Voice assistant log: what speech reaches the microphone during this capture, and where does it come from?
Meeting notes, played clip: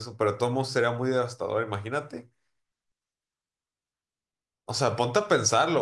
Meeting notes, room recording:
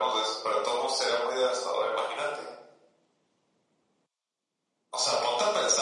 echo only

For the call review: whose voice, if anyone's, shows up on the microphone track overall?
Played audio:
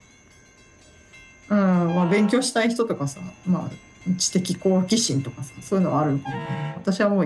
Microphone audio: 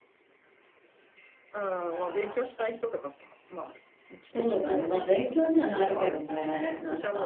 both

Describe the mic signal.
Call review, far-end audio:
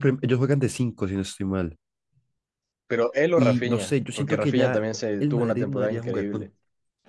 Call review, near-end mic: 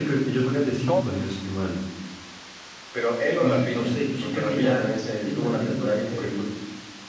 both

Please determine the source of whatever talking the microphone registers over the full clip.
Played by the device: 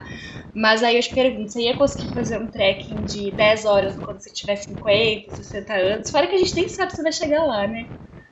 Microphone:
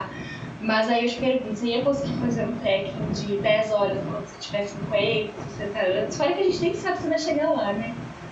echo only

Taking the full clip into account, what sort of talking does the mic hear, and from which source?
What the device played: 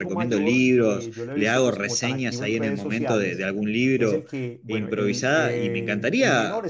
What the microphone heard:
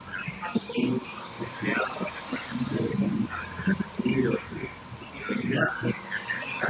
echo only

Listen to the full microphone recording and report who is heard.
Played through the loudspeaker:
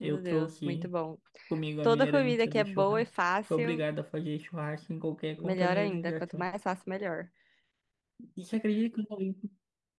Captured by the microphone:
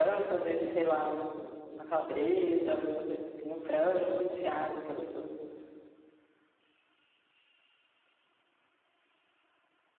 user only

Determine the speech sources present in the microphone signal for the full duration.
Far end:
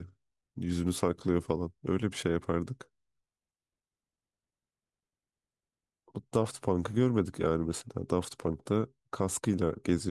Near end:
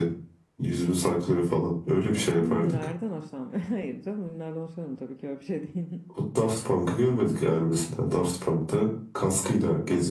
both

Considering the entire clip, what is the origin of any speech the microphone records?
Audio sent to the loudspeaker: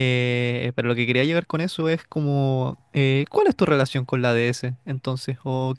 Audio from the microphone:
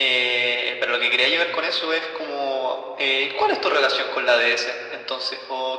echo only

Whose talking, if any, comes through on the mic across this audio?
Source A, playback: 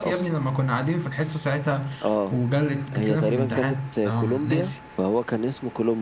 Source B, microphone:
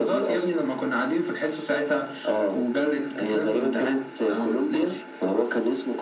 echo only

